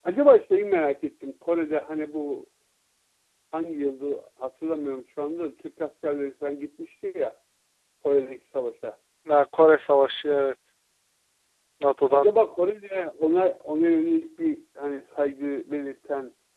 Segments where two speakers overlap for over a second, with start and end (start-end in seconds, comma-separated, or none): none